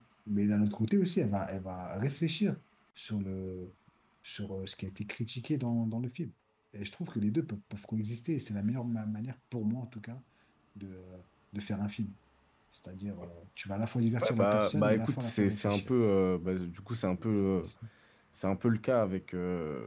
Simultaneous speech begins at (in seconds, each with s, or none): 14.2 s